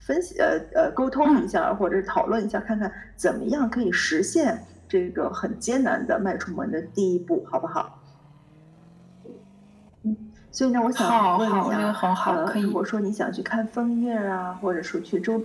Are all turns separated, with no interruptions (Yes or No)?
No